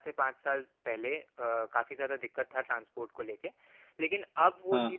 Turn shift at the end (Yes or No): No